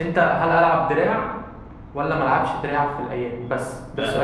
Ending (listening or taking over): taking over